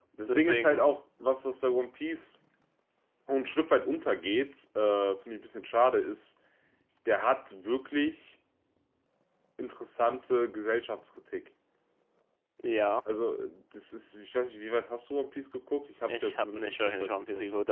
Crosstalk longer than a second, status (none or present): present